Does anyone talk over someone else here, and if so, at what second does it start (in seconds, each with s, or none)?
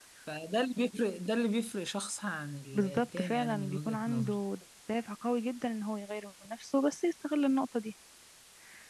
2.7 s